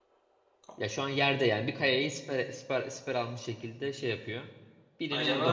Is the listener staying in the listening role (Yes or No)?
No